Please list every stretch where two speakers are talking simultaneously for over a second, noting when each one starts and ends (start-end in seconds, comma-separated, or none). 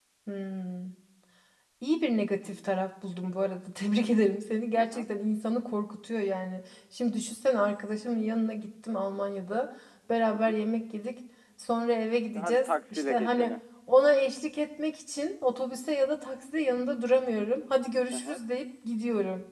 12.3-13.6